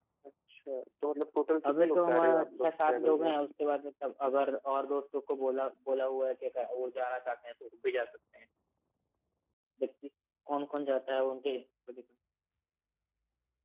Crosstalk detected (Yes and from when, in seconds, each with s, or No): Yes, from 1.6 s